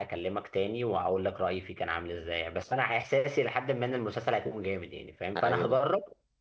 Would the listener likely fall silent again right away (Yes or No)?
Yes